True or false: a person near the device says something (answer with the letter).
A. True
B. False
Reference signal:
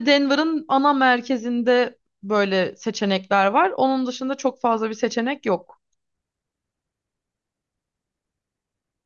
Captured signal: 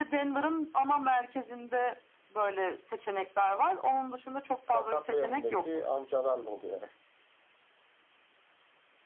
A